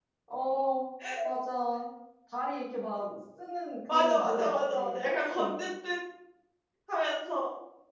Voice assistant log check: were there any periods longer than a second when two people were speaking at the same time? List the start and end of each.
3.9-5.6

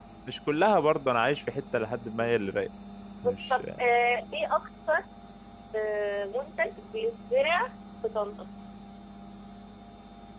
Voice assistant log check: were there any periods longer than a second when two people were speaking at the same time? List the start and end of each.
none

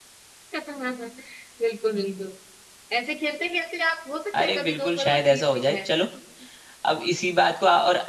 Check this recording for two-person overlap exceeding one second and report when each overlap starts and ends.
4.4-5.9

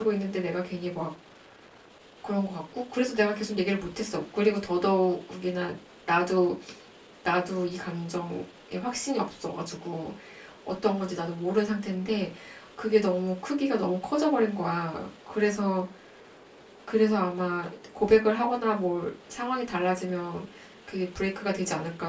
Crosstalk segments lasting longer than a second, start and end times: none

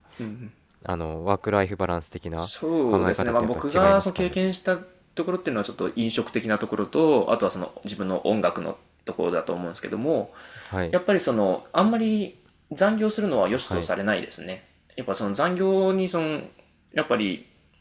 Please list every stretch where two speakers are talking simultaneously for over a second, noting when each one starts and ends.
2.9-4.4

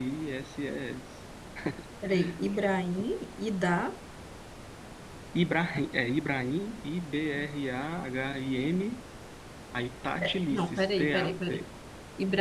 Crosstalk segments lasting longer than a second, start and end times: 10.2-11.6

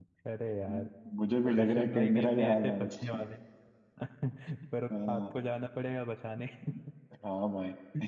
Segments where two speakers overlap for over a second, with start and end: 1.4-3.2

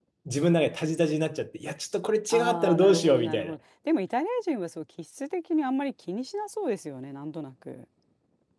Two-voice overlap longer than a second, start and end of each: 2.3-3.5

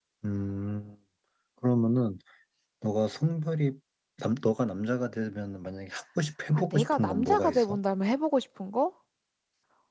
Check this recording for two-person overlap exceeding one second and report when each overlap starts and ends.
6.5-7.8

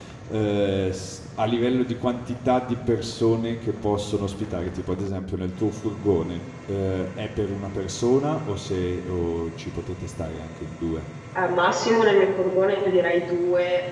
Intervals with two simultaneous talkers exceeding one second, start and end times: none

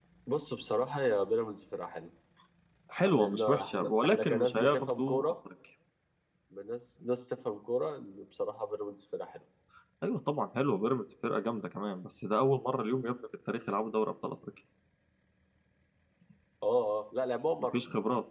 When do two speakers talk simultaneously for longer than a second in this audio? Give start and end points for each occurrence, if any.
3.0-5.3

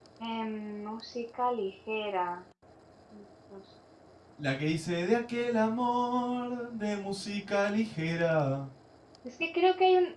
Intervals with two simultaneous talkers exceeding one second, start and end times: none

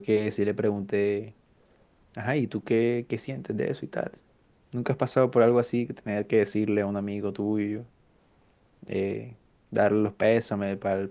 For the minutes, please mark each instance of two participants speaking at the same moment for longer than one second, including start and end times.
none

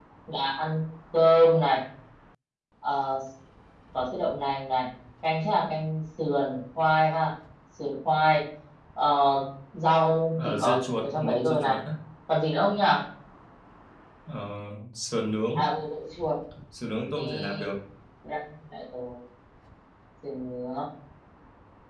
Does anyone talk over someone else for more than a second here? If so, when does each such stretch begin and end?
10.4-11.8

